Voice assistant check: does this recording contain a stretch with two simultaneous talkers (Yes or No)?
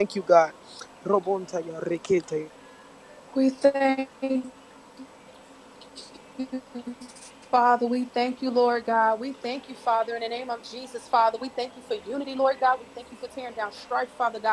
No